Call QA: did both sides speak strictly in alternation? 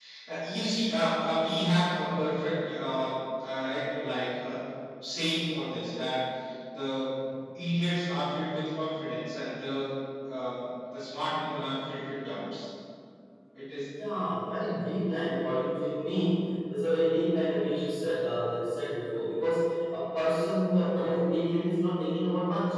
Yes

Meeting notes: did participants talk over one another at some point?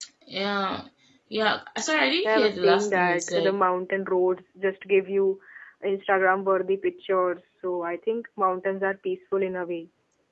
Yes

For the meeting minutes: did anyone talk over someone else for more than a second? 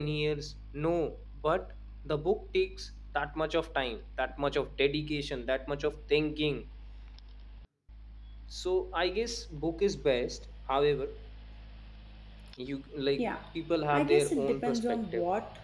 Yes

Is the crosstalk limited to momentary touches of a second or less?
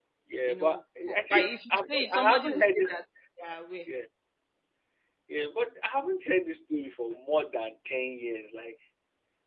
No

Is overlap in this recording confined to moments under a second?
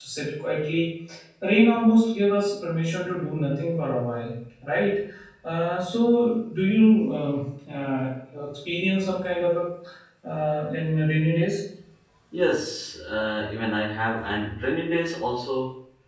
Yes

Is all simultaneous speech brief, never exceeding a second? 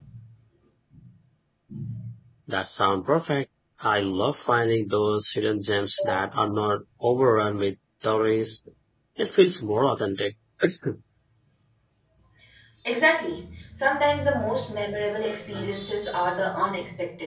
Yes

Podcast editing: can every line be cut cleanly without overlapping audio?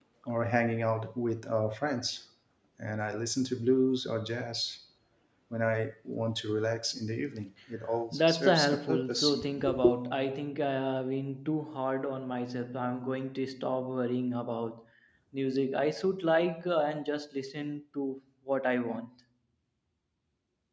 No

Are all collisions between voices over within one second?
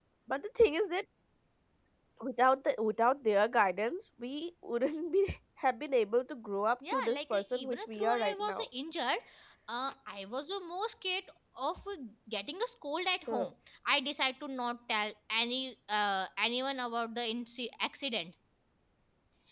No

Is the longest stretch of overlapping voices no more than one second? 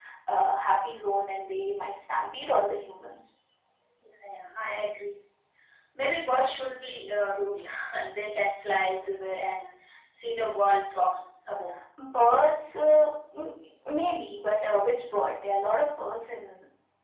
Yes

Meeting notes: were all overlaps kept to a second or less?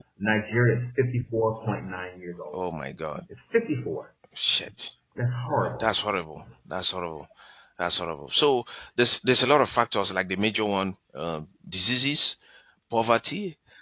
Yes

